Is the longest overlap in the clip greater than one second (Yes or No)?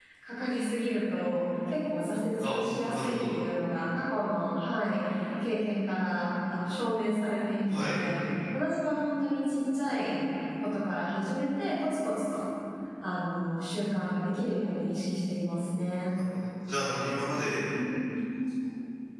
No